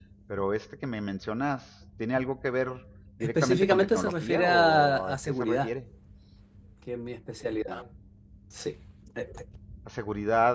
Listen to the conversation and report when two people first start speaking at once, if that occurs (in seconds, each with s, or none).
3.2 s